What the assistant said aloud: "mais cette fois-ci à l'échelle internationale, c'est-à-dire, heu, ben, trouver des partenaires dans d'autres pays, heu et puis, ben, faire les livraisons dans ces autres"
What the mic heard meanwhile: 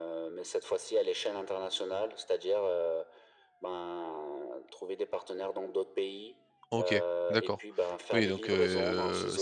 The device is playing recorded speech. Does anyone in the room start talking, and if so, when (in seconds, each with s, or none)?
6.7 s